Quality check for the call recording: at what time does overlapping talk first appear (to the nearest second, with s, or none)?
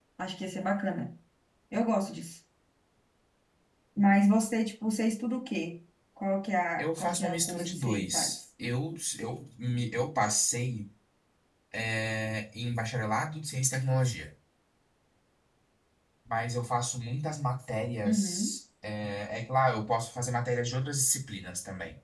7 s